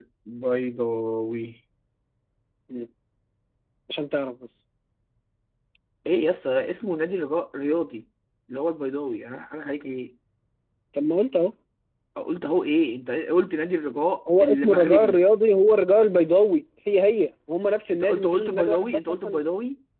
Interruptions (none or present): present